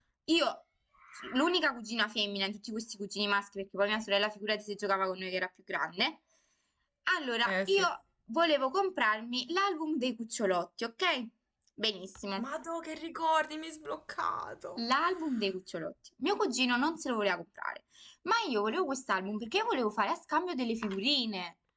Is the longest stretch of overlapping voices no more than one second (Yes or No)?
Yes